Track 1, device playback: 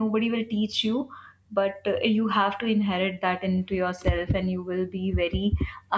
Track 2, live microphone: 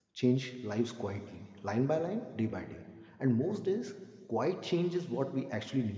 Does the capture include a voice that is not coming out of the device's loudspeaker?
Yes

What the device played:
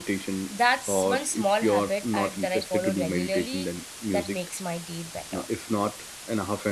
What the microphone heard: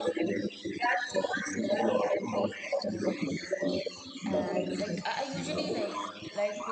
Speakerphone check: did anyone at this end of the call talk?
Yes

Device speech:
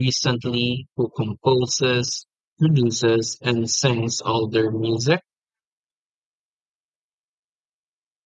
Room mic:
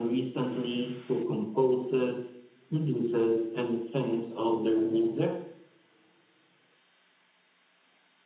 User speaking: No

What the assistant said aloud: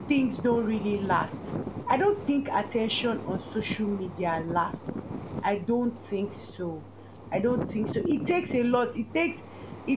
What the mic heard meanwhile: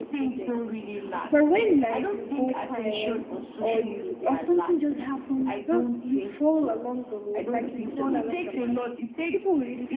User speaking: Yes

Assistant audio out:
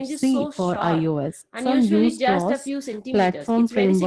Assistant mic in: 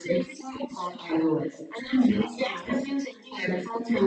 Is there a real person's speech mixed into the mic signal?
No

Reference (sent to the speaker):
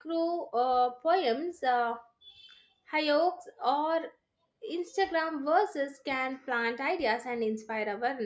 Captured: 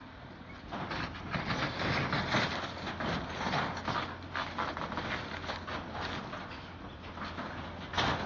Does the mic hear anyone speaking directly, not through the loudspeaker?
No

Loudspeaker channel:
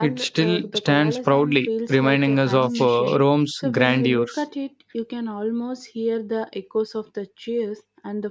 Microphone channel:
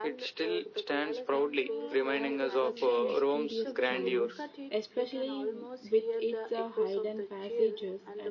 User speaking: Yes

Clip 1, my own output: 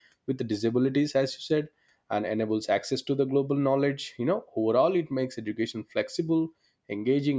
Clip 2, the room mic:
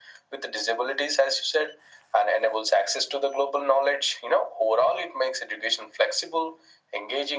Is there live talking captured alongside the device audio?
No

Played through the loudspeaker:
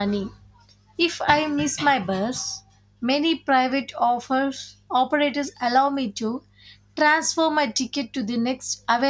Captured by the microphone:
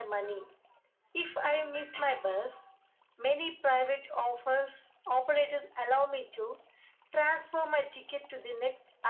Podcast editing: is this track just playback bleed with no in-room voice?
Yes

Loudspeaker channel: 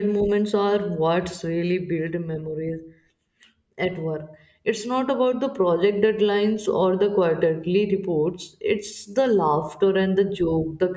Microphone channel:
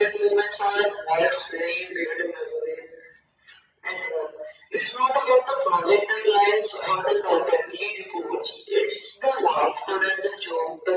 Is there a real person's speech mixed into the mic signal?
No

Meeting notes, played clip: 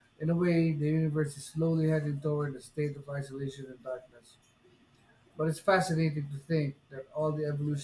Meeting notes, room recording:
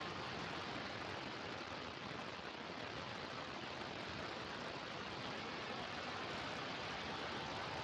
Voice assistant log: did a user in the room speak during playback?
No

